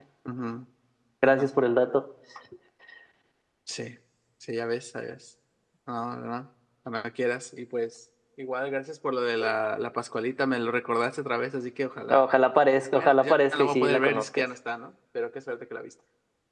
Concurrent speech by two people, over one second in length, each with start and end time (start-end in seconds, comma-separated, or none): 12.9-14.4